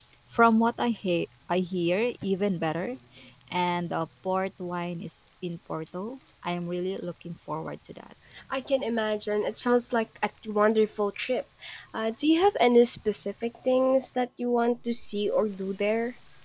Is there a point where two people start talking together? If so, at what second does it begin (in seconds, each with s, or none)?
none